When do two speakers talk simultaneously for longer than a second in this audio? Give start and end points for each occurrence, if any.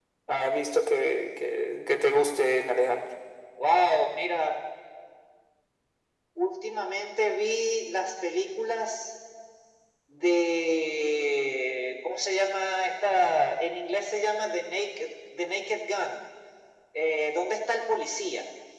none

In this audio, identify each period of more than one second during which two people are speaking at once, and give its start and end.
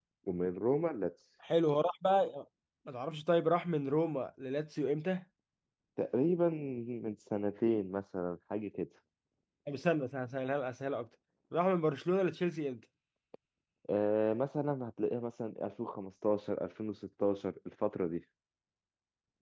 none

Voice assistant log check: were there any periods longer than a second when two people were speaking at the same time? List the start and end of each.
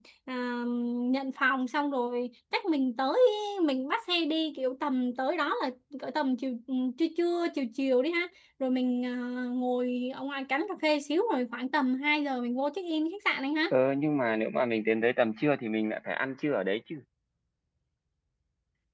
none

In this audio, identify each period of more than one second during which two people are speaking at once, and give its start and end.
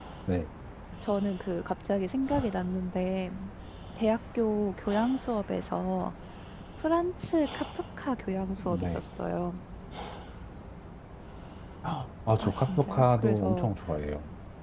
12.4-13.7

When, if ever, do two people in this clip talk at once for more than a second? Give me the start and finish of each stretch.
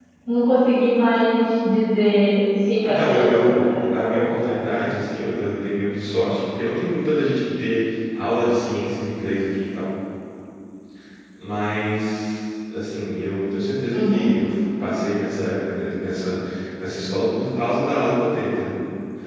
2.9-4.6

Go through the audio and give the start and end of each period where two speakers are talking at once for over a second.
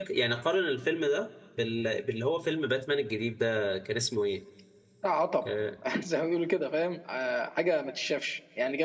none

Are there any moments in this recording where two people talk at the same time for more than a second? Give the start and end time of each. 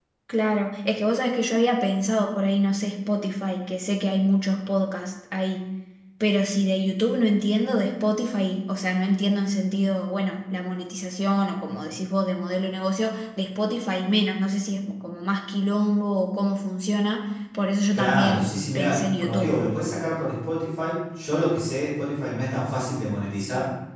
17.9-19.5

